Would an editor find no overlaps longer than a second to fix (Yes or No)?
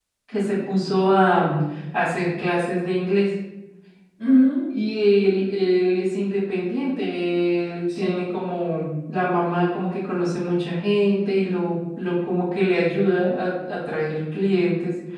Yes